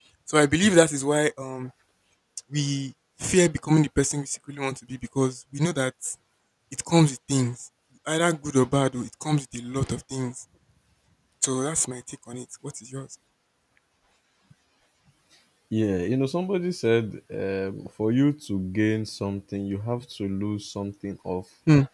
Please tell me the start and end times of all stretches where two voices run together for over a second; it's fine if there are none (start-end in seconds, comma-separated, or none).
none